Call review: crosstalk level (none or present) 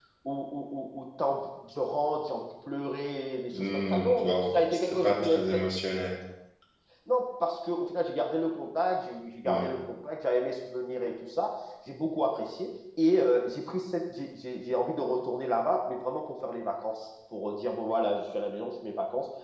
present